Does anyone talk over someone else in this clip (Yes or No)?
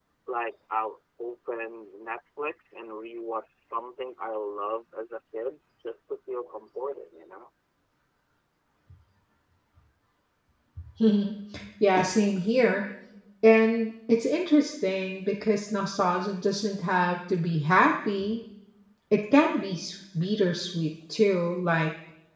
No